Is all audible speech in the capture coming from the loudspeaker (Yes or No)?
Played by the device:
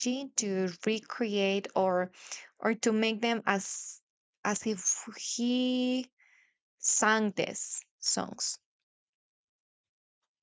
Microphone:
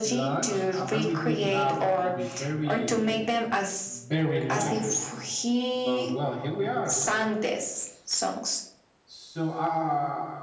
No